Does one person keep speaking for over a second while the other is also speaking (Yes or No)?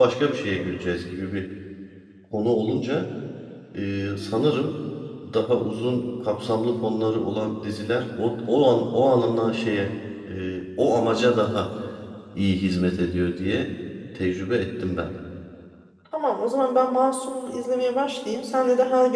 No